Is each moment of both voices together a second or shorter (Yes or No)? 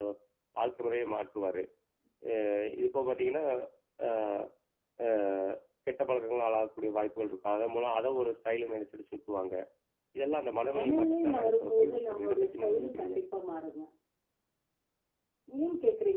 No